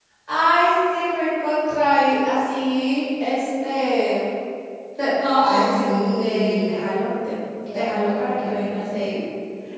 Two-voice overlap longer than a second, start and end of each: 5.4-6.7, 7.7-9.1

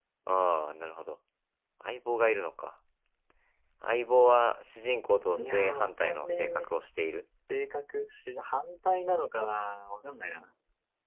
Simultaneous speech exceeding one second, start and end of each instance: 5.3-6.7

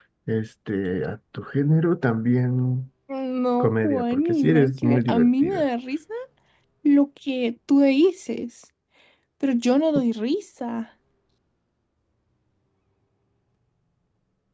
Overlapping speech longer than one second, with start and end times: 3.6-5.7

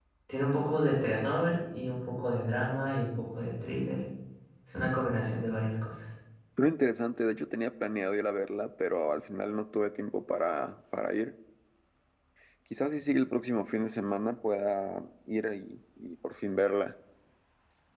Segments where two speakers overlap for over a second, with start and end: none

